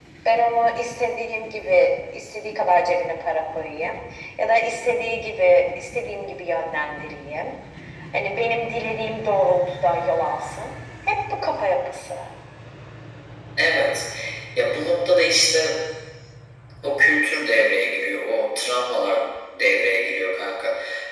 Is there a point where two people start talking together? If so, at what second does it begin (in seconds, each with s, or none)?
none